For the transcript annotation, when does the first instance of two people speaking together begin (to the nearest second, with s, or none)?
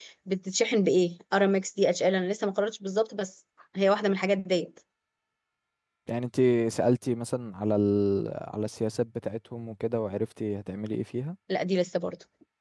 none